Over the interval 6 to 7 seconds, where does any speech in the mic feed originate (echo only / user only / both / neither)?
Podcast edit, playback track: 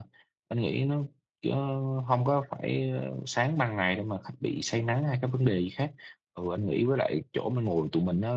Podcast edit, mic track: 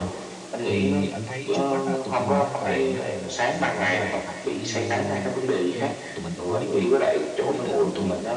both